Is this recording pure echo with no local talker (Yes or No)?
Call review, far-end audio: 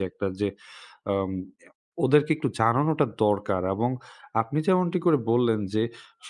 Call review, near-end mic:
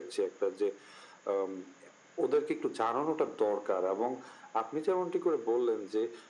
Yes